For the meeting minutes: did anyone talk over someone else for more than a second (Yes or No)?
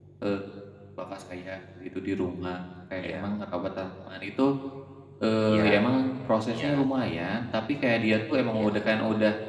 No